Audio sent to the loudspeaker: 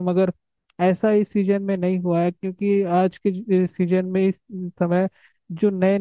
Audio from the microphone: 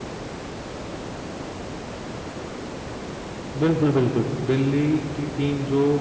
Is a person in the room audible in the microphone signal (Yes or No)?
Yes